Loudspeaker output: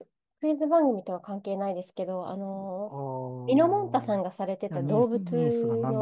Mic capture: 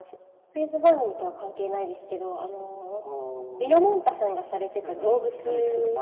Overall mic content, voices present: both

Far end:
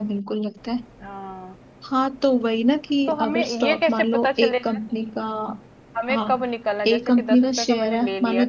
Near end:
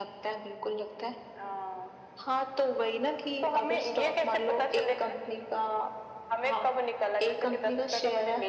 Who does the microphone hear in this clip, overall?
echo only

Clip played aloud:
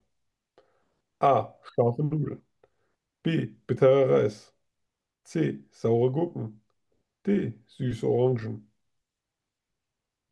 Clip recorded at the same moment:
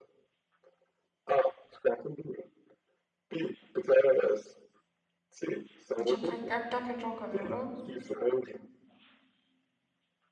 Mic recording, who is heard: both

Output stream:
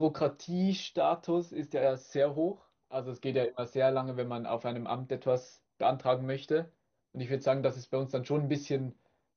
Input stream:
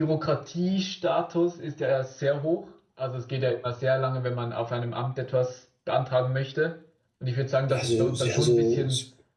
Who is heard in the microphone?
both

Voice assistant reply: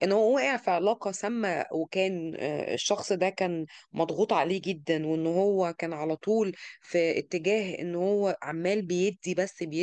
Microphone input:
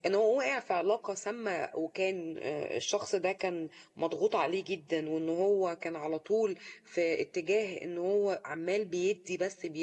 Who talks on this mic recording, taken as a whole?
echo only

